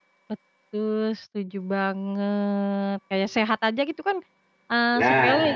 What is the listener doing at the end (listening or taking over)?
listening